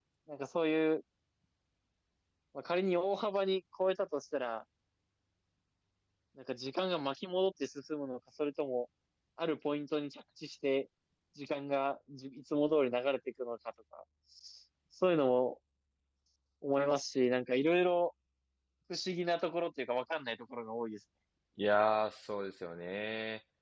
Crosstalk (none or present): none